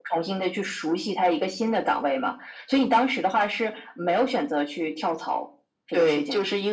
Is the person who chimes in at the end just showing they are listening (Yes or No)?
No